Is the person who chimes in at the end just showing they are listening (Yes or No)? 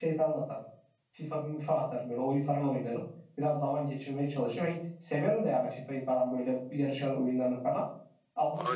No